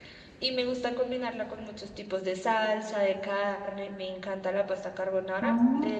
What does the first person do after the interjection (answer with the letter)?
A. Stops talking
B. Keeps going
B